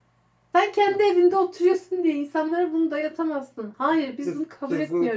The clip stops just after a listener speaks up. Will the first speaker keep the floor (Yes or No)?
No